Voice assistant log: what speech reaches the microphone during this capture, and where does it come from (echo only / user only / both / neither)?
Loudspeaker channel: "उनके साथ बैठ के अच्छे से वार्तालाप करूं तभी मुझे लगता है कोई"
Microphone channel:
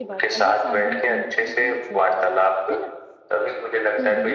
both